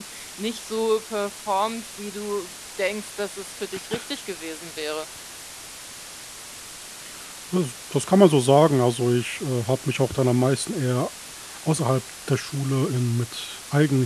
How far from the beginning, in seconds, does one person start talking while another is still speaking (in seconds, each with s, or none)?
none